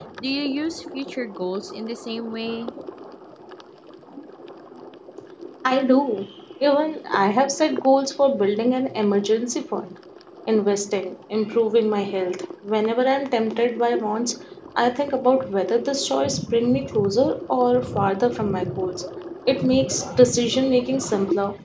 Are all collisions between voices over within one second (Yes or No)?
Yes